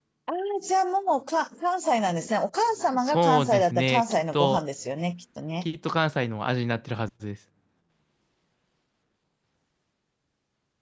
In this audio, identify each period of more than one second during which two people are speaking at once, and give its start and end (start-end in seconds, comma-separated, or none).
3.0-4.6